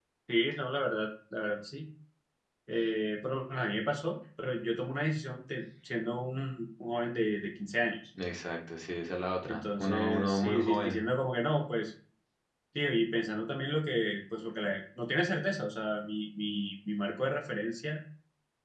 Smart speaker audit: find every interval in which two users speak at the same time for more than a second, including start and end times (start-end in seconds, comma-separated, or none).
9.5-11.1